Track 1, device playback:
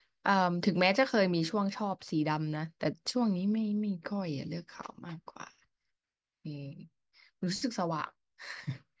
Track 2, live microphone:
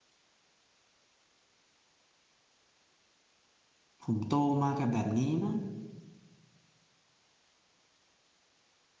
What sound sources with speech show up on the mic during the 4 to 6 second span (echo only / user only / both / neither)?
user only